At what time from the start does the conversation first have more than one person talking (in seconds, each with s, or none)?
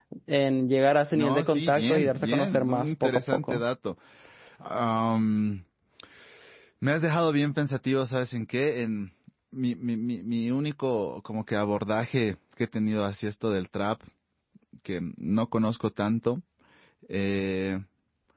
1.1 s